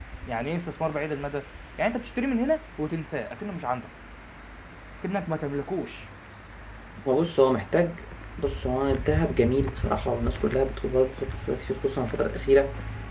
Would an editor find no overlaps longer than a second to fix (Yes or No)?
Yes